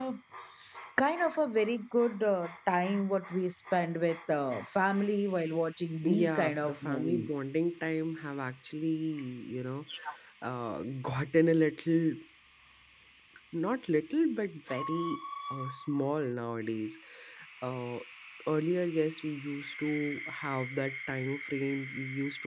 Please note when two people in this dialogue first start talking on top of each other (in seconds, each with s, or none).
6.0 s